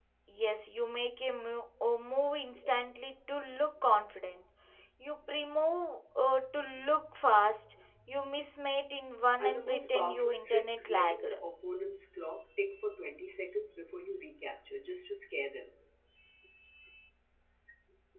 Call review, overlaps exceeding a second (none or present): present